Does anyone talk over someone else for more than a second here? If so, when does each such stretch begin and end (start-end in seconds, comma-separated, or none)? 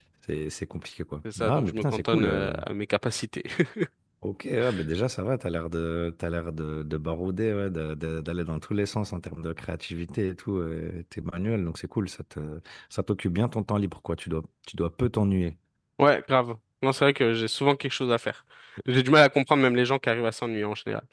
1.4-2.6